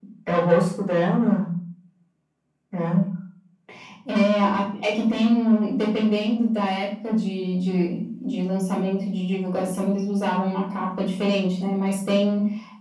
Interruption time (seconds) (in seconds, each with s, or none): none